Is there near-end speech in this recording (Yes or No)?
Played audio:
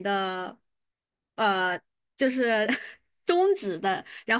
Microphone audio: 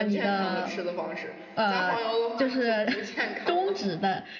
Yes